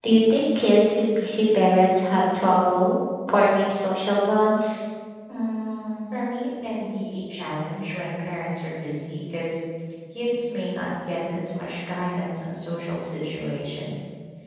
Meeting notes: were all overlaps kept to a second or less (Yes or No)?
Yes